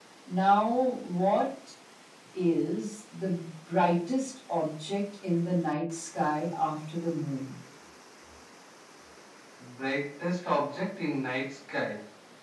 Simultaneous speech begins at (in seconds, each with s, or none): none